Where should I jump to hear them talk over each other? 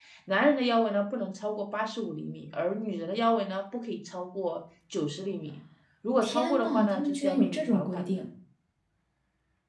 6.2 s

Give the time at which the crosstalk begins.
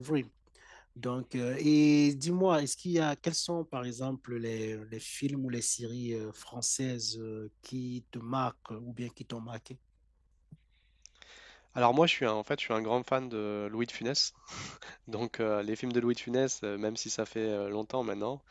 none

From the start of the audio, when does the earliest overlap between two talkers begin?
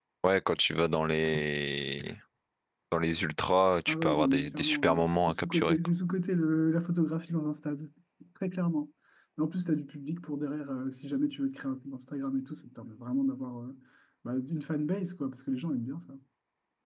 3.9 s

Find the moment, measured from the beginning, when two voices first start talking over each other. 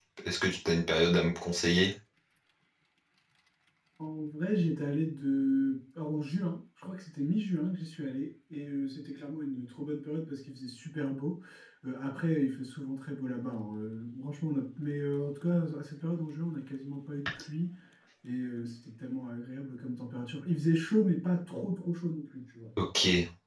none

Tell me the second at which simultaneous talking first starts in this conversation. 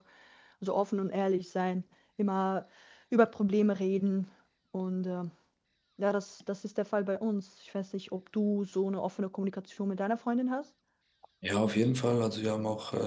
none

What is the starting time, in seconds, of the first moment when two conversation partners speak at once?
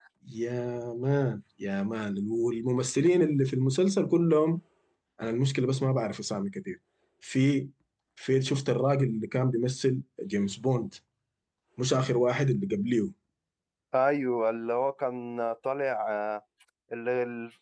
none

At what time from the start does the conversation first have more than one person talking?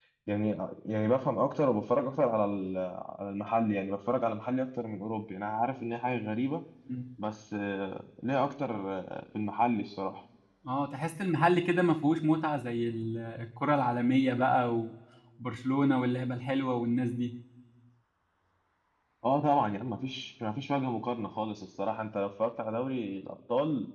none

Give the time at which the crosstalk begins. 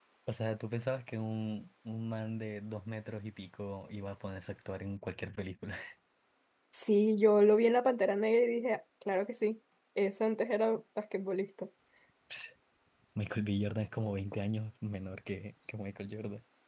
none

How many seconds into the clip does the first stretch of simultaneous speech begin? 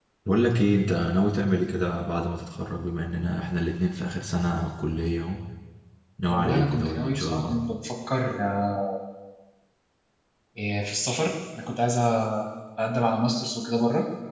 6.3 s

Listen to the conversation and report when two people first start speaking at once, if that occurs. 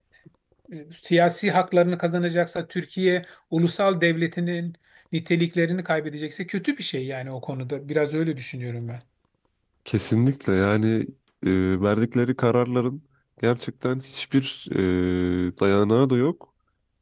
none

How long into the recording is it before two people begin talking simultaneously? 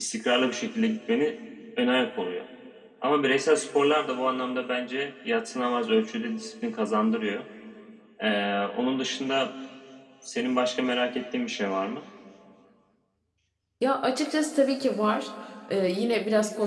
none

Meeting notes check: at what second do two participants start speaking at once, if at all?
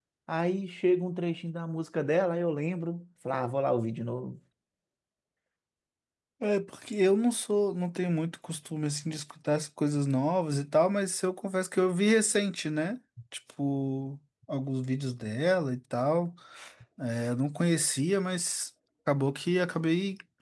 none

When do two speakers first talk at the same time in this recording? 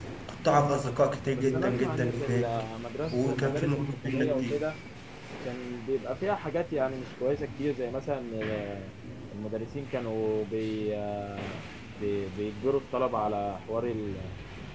1.4 s

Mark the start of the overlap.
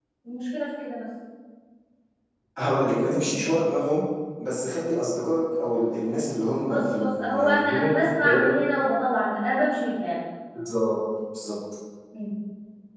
6.7 s

